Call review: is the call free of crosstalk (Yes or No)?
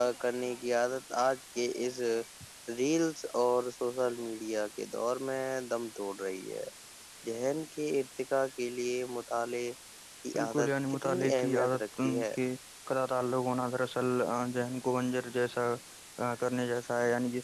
No